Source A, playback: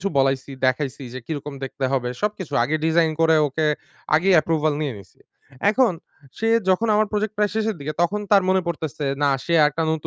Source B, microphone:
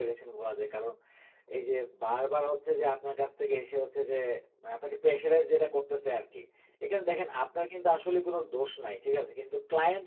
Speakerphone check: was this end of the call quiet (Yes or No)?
No